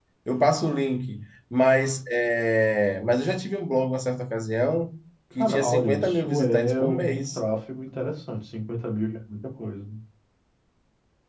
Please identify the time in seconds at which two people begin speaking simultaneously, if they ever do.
5 s

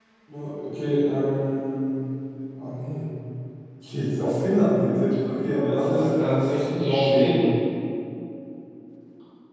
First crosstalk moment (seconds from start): 6 s

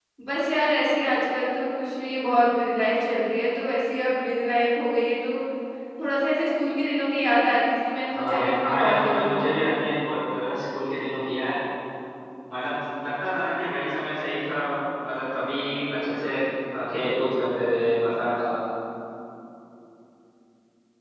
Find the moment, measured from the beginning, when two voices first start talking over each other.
8 s

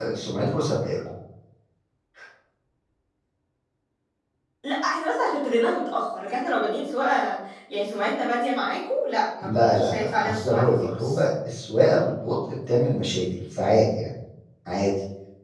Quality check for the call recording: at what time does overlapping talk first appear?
9 s

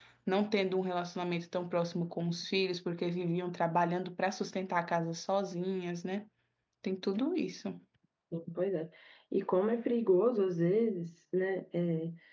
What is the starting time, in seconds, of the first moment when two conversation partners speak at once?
none

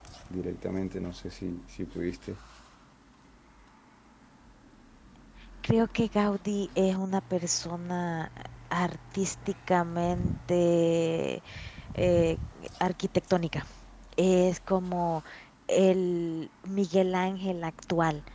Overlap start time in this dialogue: none

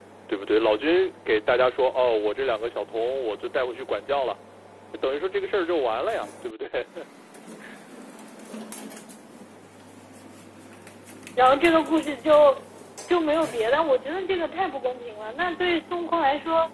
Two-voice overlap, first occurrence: none

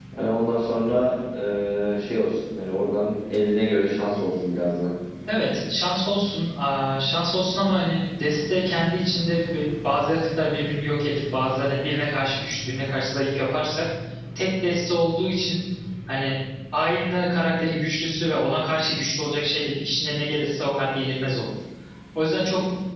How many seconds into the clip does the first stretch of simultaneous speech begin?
none

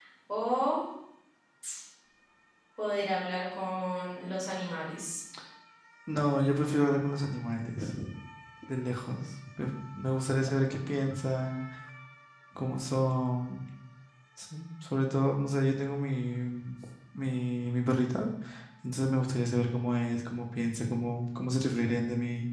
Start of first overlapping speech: none

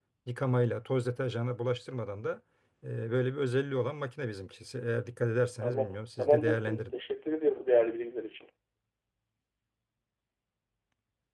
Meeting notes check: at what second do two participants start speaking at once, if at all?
6 s

